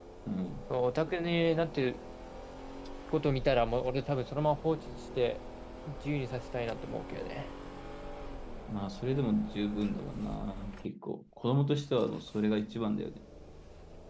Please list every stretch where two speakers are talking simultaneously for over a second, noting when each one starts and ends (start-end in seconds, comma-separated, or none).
none